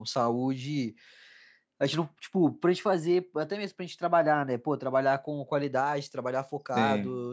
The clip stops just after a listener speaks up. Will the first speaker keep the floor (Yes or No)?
Yes